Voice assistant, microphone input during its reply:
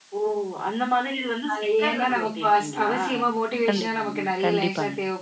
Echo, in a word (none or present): present